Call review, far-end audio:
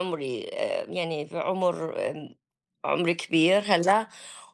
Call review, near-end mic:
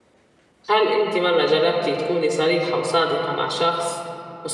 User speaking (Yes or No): Yes